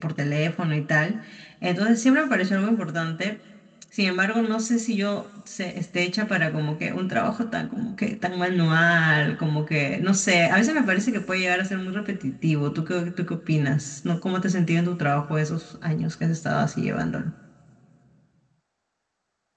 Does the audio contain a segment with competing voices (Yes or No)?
No